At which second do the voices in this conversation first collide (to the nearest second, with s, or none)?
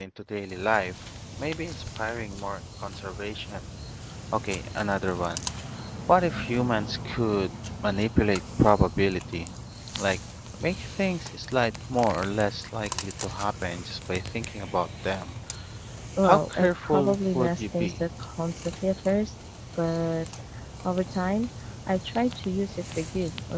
16 s